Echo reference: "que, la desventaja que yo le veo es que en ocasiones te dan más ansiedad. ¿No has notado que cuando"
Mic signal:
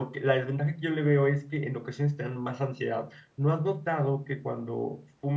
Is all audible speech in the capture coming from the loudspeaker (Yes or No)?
Yes